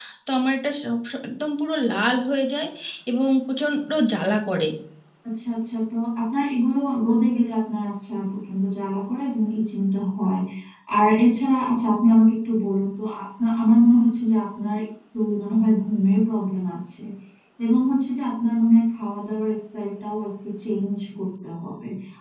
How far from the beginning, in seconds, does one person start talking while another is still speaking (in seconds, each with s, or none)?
none